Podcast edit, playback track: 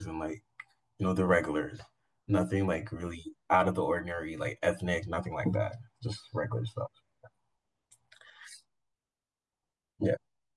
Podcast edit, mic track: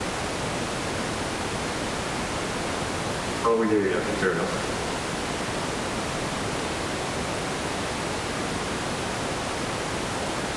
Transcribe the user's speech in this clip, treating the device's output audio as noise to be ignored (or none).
Oh yeah, yeah, fair enough.